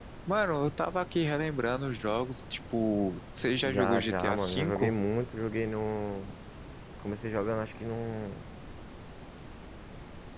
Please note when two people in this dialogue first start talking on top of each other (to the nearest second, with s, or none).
4 s